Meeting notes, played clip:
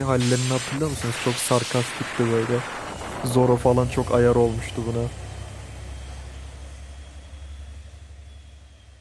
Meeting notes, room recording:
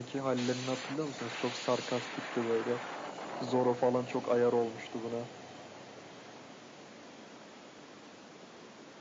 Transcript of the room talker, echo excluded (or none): none